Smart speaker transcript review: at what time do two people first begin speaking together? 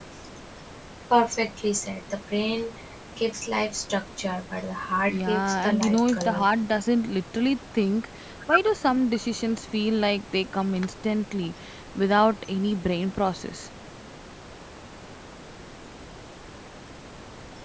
5.1 s

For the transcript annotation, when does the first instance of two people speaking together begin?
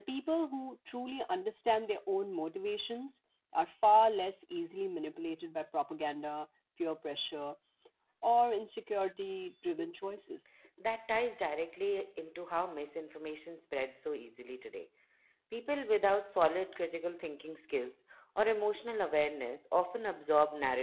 none

